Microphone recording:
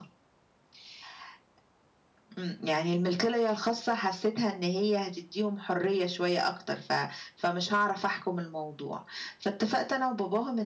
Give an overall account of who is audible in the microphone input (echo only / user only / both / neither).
echo only